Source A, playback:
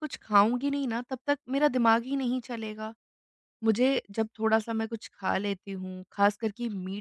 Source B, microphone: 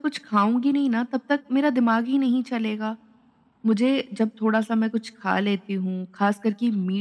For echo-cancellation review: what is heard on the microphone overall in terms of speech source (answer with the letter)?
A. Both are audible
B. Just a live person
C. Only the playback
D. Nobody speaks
C